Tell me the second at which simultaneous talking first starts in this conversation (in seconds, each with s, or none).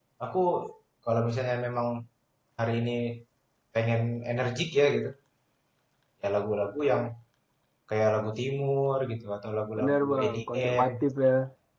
9.8 s